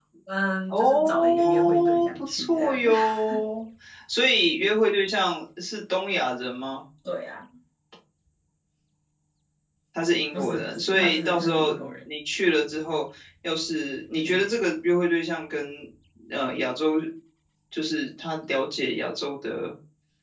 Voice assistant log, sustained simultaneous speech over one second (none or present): present